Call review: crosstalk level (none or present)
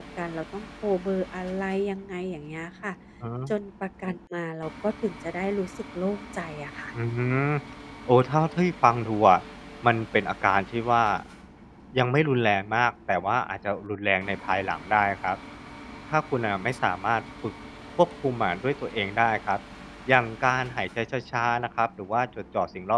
none